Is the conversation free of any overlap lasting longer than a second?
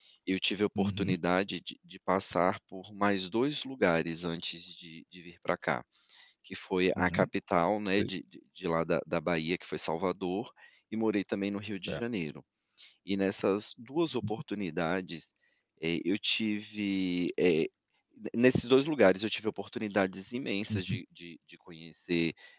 Yes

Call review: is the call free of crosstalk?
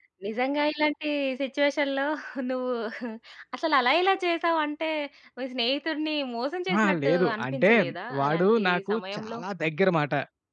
No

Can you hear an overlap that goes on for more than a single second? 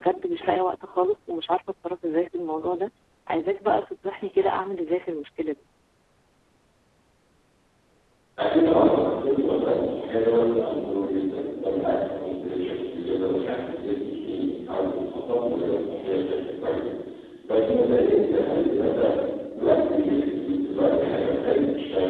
No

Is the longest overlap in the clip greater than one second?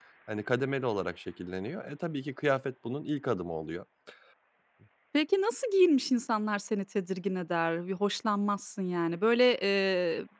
No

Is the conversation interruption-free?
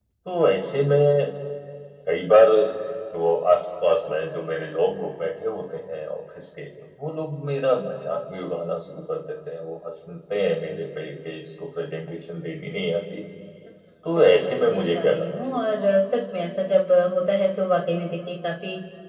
No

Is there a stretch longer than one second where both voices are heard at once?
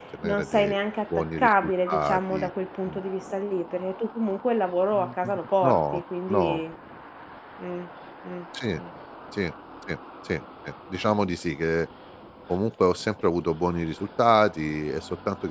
Yes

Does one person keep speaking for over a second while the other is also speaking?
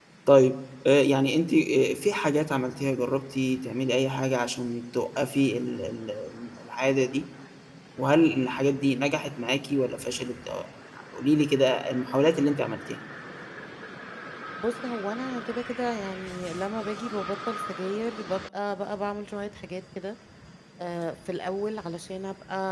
No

